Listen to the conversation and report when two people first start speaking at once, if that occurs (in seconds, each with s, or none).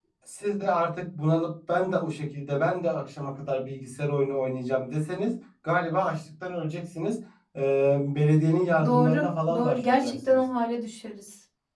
8.8 s